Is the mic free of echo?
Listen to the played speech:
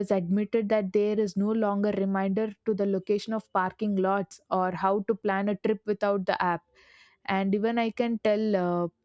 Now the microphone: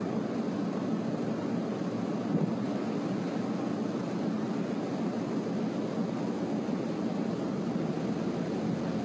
Yes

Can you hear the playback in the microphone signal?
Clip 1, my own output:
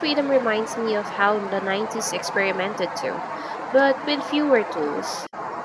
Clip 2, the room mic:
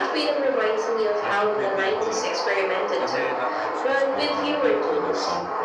Yes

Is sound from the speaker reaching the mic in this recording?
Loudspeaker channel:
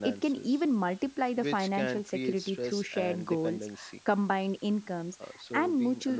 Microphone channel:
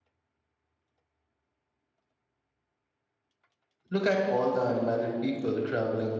No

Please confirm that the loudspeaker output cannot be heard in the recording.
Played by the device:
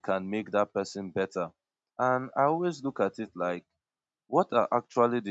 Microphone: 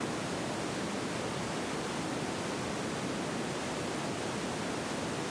Yes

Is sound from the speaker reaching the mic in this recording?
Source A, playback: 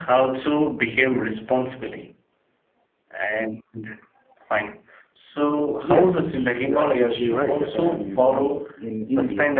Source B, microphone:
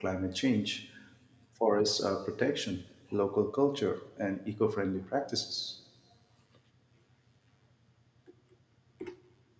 No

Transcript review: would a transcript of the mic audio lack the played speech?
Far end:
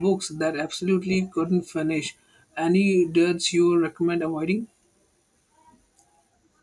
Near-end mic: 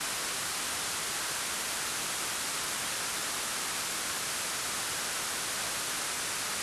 Yes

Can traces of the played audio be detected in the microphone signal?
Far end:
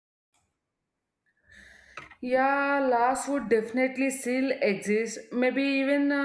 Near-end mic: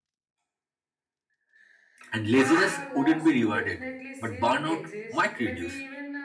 Yes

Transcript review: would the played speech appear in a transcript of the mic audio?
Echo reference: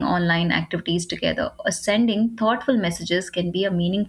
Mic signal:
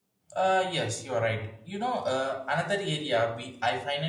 No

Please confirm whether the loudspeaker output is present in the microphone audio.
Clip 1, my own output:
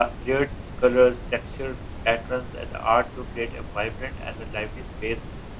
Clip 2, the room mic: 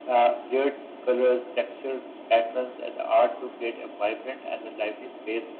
Yes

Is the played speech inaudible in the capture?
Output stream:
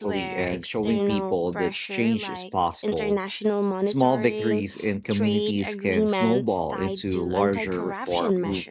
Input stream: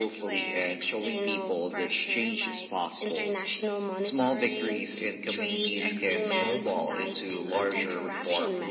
No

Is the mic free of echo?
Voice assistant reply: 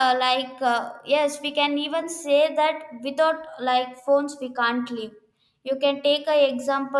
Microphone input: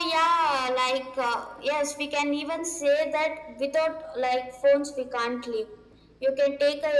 No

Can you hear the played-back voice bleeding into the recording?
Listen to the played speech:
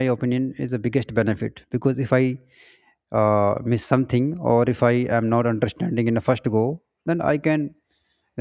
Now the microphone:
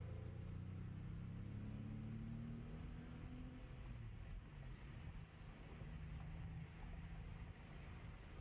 No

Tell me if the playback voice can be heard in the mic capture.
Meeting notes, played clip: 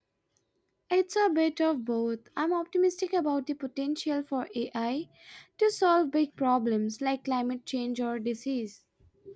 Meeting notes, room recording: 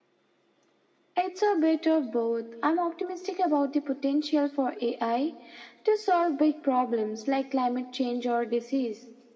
Yes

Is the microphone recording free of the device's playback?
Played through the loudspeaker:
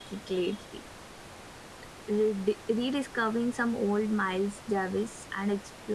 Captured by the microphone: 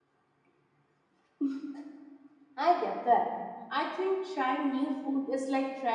Yes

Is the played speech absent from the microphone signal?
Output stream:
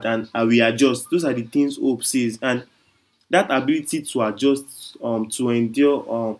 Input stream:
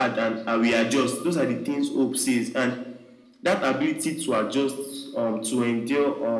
No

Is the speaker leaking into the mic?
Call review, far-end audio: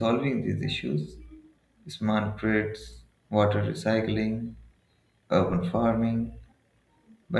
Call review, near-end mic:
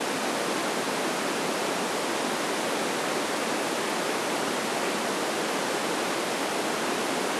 No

